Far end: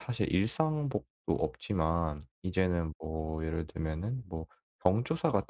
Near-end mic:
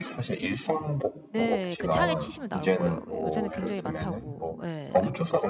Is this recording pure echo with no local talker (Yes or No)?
No